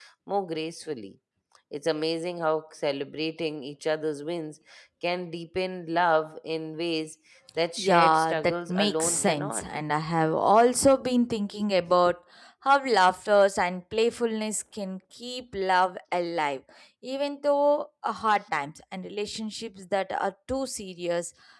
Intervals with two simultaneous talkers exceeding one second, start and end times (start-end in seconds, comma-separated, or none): 7.8-9.6